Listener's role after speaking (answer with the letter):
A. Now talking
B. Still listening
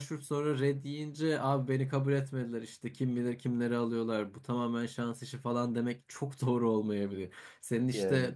B